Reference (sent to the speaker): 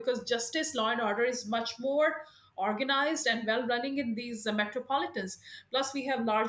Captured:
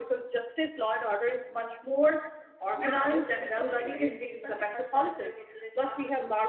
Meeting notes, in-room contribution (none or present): present